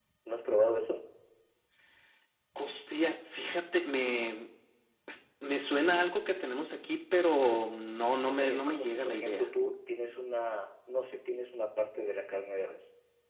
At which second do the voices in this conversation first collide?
8.3 s

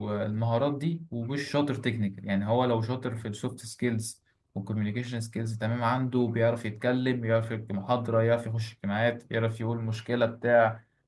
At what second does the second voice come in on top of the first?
none

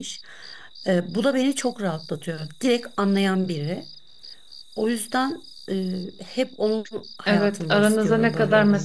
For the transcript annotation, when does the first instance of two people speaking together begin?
7.3 s

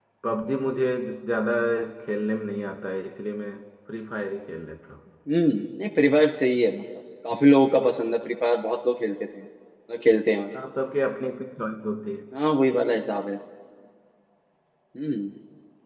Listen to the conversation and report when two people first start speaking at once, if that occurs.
none

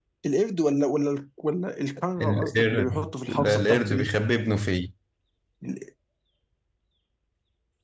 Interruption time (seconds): 2.2 s

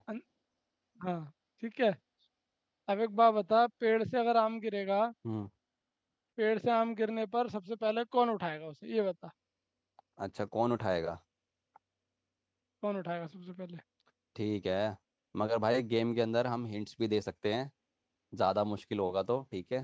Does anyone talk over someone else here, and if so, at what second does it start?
none

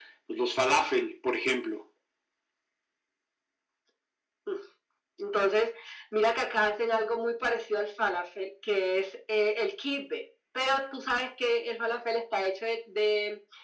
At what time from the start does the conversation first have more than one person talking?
none

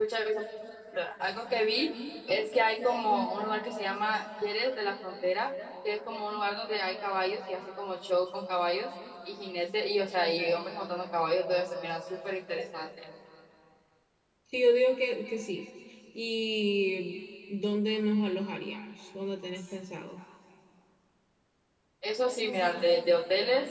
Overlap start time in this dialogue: none

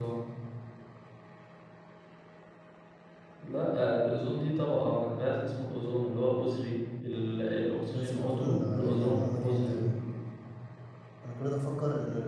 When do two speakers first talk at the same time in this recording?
7.9 s

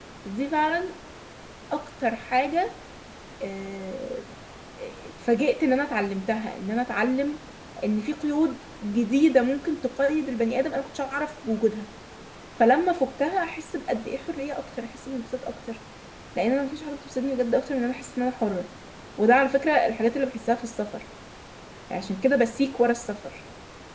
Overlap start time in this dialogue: none

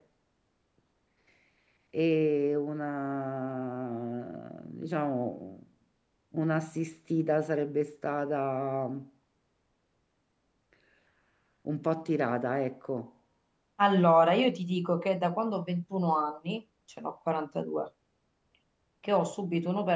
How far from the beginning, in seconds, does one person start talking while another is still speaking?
none

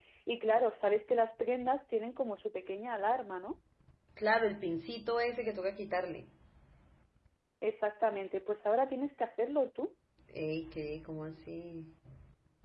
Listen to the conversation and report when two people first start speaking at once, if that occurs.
none

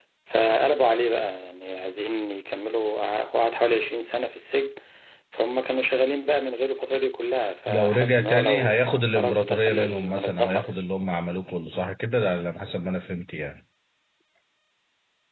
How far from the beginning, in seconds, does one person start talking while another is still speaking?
7.7 s

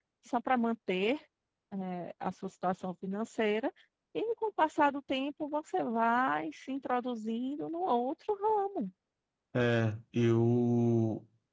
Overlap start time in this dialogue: none

